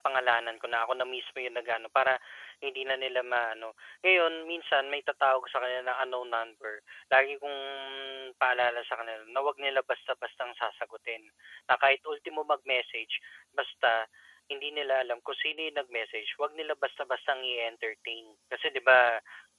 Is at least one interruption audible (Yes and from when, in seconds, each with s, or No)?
No